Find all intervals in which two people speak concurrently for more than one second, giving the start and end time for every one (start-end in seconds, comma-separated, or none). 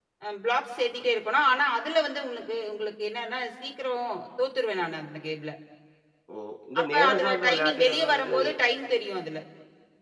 6.8-8.4